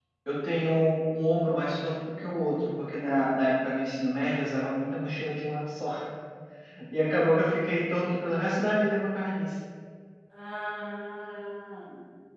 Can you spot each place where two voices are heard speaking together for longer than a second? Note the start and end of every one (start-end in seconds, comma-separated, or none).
none